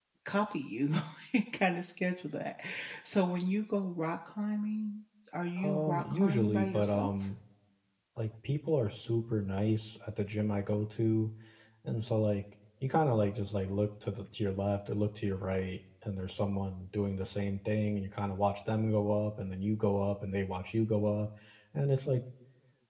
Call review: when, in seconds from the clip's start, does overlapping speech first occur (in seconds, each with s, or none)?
5.6 s